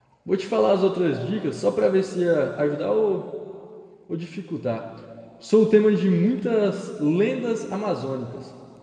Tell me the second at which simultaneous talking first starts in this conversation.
none

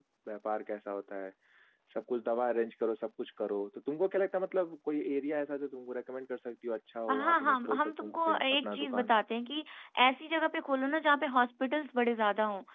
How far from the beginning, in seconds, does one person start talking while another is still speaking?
7.1 s

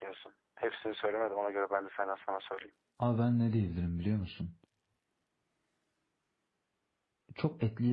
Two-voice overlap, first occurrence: none

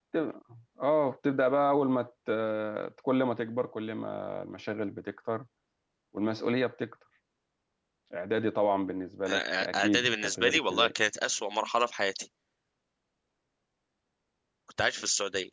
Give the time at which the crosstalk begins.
9.2 s

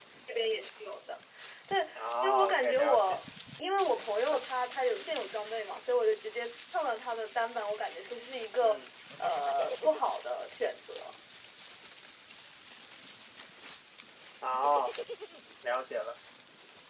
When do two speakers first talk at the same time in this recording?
1.9 s

